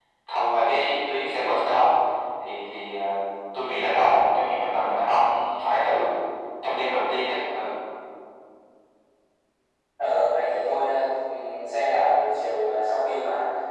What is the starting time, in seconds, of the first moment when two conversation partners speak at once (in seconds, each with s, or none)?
none